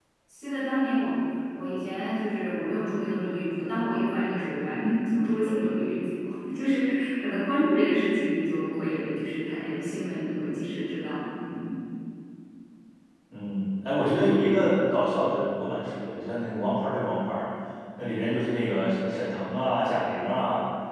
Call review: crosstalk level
none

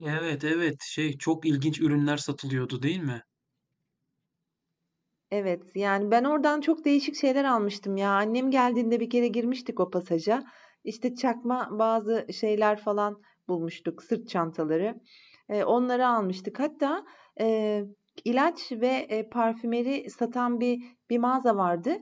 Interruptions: none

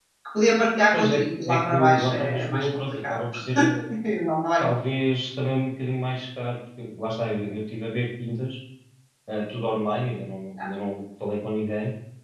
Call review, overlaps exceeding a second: present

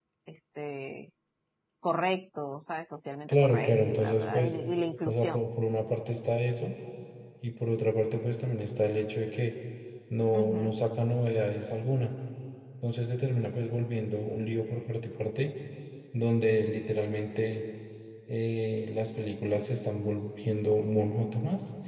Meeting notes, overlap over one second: present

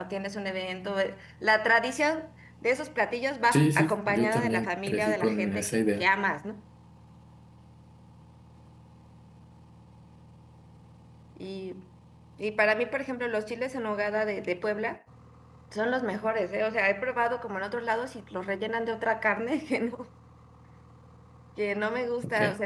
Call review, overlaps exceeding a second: present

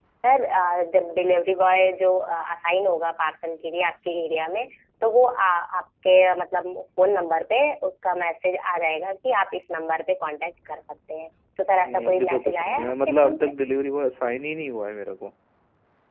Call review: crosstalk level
present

